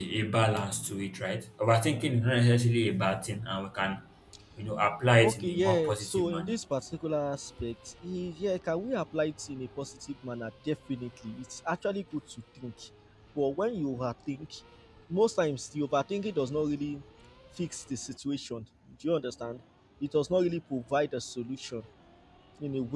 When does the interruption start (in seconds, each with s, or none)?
5.2 s